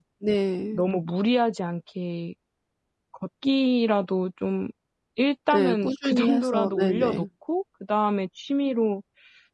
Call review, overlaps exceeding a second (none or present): present